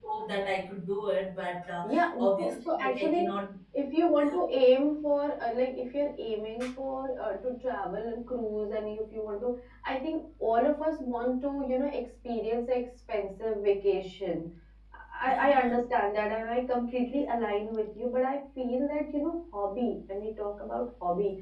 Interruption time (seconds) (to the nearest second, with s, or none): 2 s